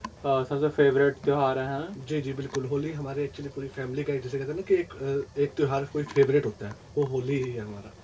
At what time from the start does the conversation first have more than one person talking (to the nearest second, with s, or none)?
none